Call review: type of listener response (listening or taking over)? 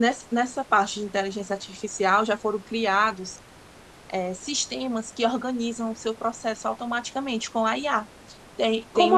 listening